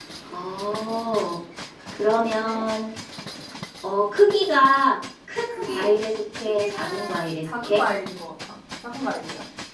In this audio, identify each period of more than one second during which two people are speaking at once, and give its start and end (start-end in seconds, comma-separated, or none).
6.5-7.8